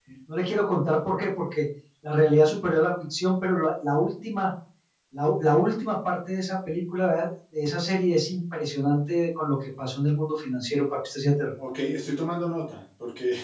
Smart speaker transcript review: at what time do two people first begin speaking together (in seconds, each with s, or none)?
none